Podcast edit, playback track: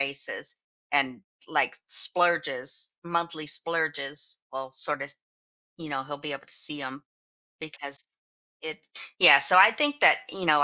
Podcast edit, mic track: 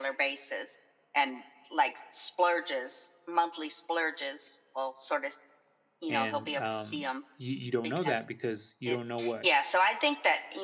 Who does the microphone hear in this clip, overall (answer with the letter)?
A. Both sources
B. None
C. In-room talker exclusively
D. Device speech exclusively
A